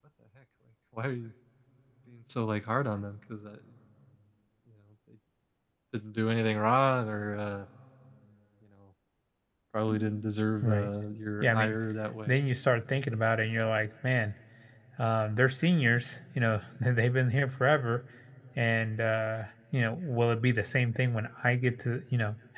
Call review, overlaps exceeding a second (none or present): none